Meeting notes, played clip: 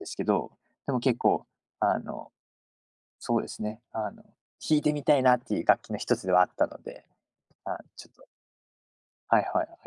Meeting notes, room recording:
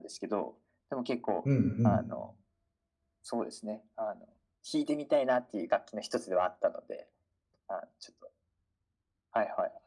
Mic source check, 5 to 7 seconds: echo only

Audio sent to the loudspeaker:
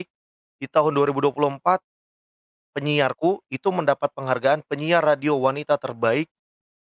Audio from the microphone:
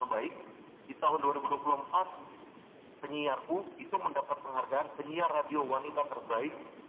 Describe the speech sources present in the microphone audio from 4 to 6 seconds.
echo only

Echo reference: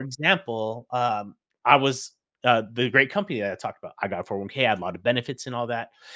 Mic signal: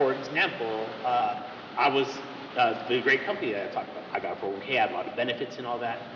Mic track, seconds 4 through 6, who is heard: echo only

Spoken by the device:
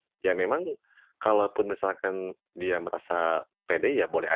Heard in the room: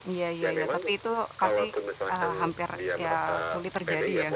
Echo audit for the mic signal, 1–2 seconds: both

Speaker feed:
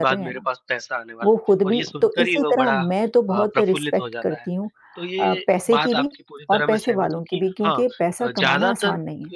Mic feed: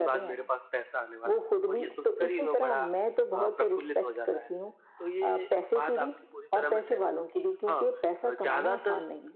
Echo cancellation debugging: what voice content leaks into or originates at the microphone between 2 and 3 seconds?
echo only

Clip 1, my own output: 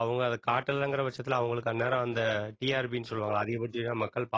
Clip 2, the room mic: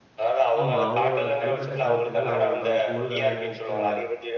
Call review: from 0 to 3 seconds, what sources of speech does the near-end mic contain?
both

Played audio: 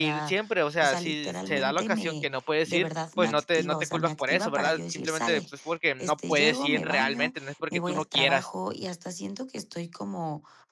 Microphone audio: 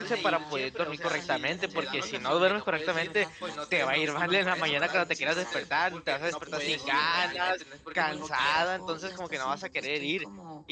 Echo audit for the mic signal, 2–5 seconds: both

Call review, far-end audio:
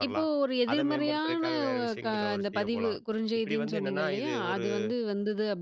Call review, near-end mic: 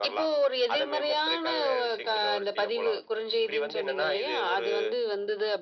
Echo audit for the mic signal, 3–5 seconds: echo only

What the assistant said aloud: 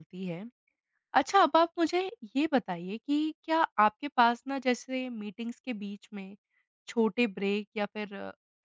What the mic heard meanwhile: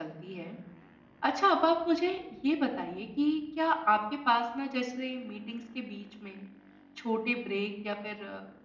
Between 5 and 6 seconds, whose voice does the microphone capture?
echo only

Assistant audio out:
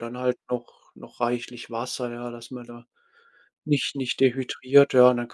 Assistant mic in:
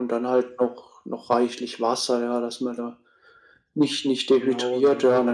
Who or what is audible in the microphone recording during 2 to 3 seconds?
echo only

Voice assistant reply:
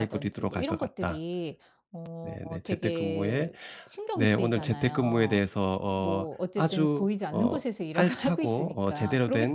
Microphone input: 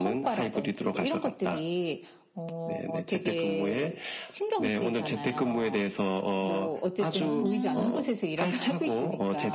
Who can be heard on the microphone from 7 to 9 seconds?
both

